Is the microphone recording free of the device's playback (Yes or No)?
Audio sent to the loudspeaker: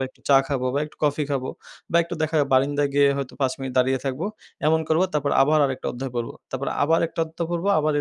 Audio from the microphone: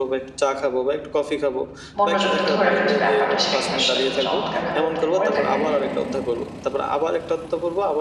No